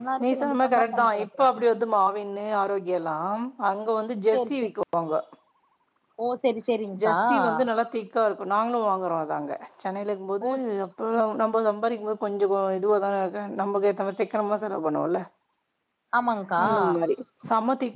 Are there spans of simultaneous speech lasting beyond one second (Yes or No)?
Yes